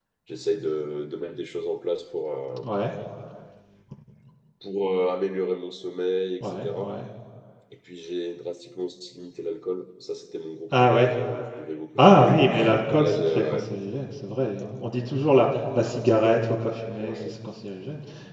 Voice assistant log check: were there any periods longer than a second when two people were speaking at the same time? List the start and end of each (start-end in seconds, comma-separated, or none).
12.0-13.4